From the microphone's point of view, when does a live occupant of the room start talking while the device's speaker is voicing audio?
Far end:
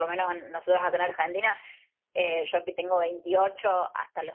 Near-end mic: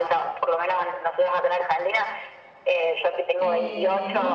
3.4 s

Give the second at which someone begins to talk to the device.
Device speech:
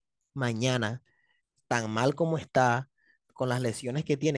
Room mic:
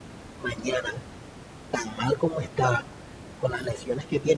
none

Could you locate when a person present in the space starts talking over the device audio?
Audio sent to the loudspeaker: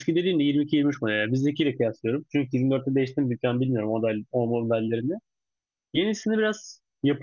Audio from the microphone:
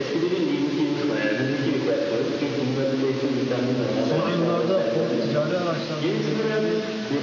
3.7 s

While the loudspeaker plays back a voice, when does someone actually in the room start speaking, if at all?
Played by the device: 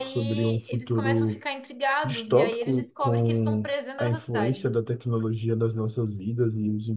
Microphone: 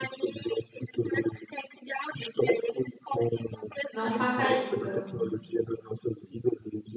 3.9 s

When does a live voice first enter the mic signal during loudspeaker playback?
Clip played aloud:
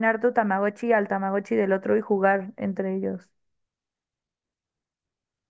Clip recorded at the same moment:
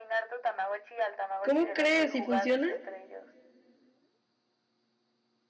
1.4 s

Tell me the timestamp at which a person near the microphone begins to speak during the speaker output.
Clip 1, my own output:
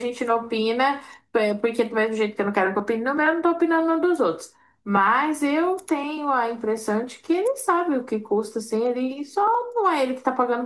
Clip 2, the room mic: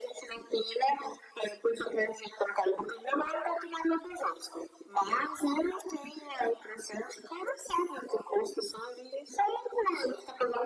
none

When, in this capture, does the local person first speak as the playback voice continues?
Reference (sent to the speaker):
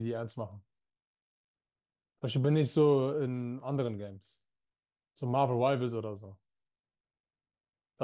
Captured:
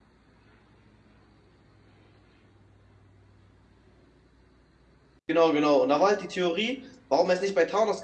5.3 s

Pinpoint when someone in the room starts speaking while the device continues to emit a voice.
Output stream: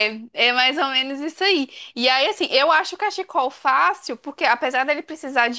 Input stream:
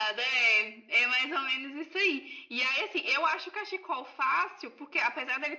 none

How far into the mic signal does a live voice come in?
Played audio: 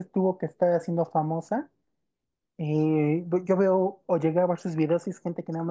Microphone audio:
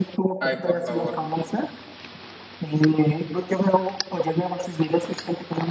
0.4 s

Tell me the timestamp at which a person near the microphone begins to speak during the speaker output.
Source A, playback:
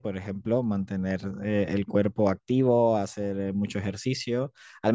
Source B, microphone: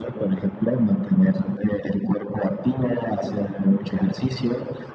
none

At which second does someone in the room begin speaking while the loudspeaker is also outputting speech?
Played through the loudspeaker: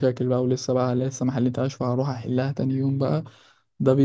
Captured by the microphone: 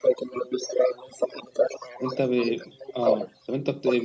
2.0 s

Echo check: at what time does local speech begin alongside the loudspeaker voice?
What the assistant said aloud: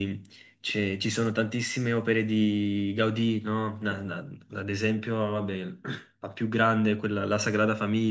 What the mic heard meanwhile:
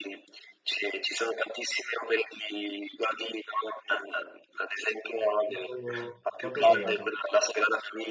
5.4 s

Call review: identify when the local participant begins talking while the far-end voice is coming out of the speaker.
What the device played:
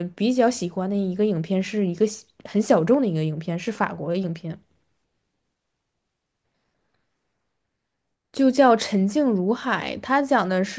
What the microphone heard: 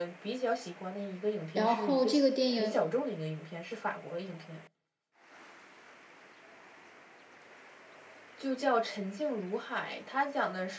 1.5 s

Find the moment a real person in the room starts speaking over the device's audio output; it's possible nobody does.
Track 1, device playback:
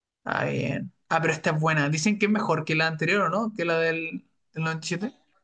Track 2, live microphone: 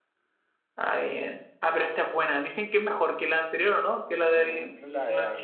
4.3 s

